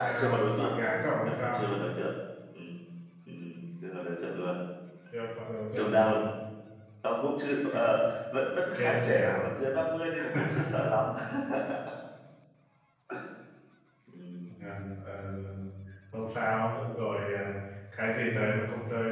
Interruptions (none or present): present